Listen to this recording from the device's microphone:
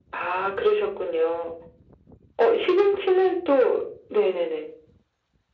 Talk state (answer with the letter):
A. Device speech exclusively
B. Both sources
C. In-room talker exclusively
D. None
A